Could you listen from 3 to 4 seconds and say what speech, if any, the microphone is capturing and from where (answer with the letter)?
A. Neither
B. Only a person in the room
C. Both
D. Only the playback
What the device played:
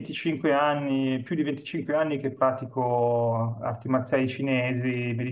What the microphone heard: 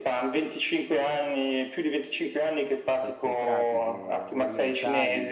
C